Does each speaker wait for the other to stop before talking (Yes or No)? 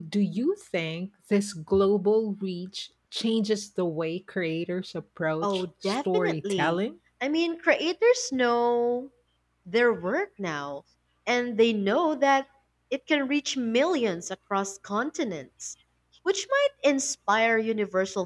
No